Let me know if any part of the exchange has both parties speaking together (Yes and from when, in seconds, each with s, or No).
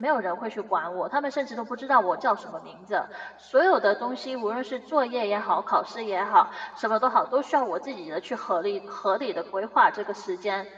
No